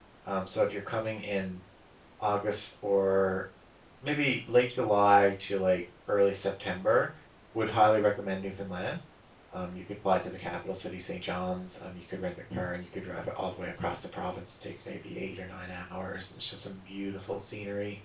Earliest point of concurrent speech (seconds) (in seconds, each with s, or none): none